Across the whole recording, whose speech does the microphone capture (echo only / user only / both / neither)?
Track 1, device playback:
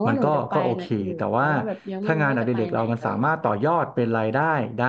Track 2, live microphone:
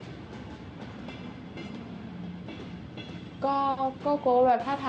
user only